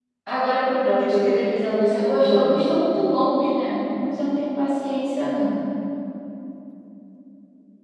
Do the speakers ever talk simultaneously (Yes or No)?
Yes